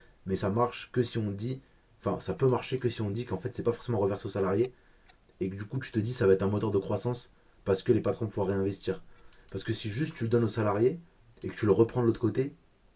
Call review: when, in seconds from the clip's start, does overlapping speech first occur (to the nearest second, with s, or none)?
none